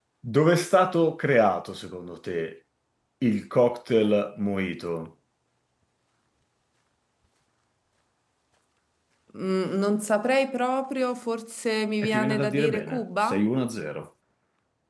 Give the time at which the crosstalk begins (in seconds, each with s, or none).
12.0 s